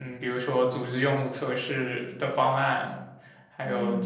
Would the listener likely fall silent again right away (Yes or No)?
Yes